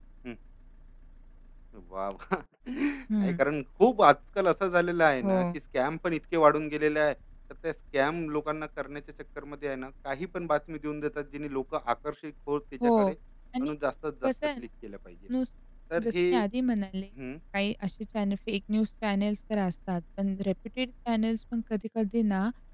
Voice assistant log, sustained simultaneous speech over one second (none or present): none